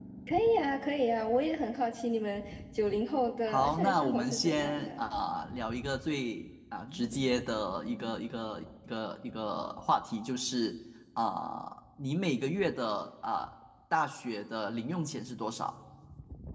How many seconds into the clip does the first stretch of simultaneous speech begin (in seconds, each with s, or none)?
3.5 s